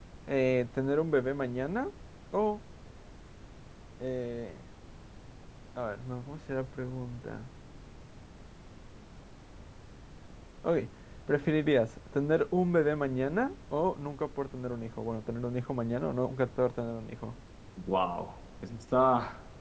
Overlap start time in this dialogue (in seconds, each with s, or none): none